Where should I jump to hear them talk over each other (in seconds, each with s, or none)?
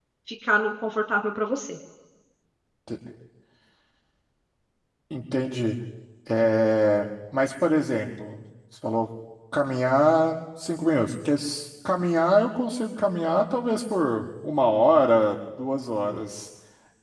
none